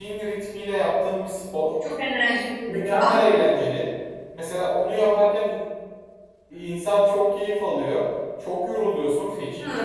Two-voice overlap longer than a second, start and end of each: none

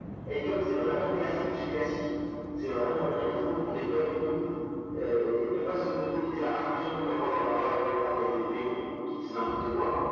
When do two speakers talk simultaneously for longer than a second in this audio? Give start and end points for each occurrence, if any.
none

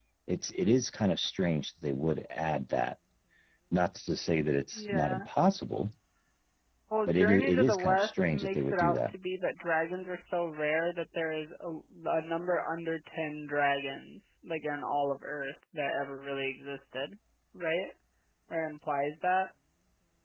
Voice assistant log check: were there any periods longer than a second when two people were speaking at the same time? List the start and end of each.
7.1-9.1

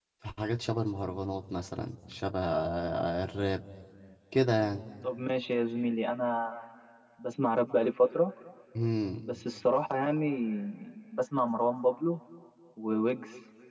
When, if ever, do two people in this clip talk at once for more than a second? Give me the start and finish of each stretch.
none

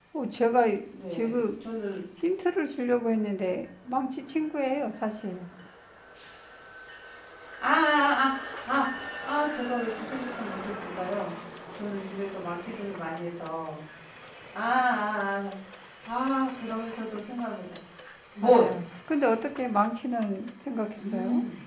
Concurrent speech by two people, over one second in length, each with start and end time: none

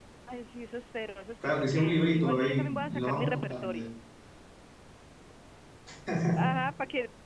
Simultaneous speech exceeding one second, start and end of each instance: 1.4-3.8

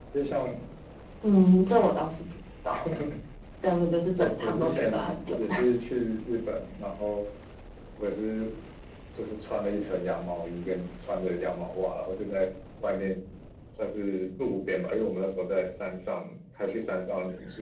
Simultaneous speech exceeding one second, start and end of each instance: 4.2-5.4

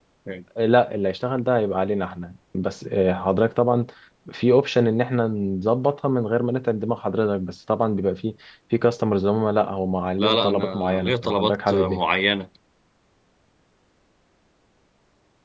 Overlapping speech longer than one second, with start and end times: 10.2-12.0

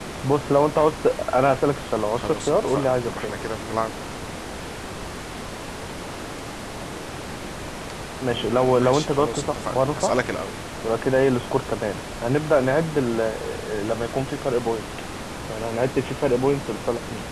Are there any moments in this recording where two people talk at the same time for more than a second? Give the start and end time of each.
2.2-3.5, 8.3-10.1

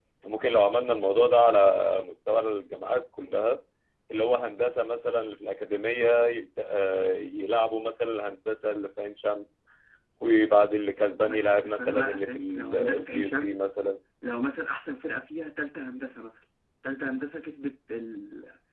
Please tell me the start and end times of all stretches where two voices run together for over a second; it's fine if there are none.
11.2-13.7

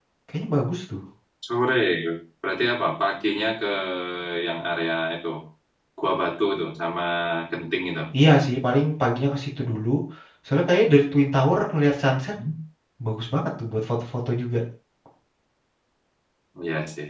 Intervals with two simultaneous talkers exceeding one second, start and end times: none

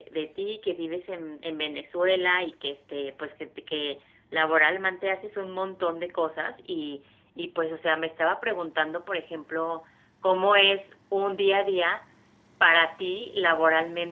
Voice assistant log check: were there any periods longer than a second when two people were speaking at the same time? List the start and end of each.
none

